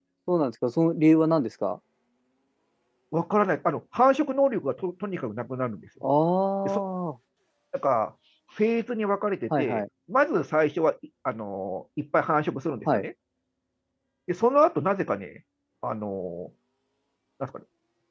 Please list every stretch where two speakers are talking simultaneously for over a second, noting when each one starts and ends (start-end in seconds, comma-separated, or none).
none